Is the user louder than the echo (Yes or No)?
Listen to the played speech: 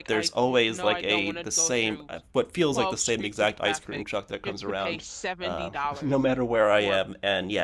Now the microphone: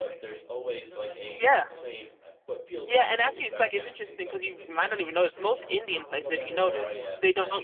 Yes